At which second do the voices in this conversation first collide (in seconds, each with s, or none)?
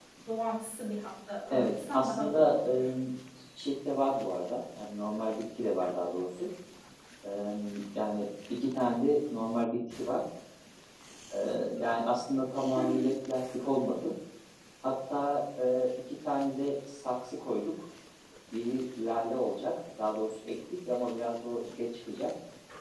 1.5 s